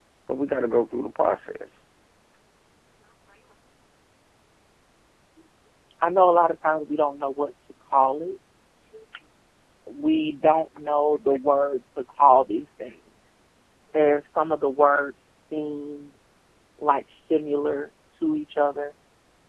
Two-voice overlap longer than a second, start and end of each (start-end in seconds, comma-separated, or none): none